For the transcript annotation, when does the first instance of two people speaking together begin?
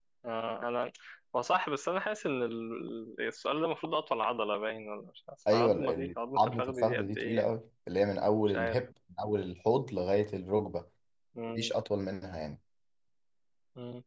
5.5 s

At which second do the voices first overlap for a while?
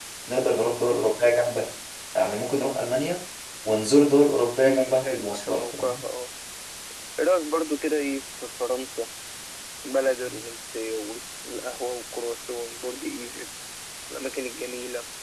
4.6 s

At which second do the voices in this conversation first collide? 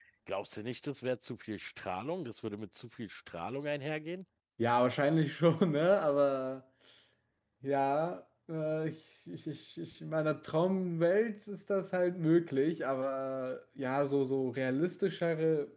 none

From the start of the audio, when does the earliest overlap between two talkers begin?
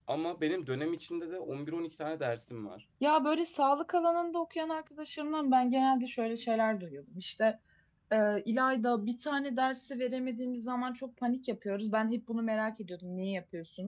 none

